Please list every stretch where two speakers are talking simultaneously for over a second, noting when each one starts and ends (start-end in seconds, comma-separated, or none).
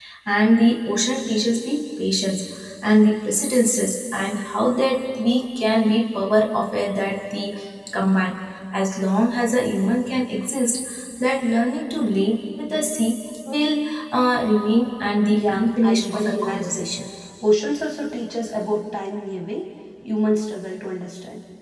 15.3-16.9